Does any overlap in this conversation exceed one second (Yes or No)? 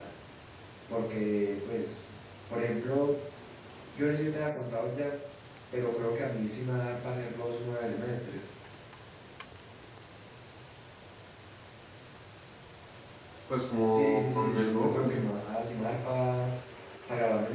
Yes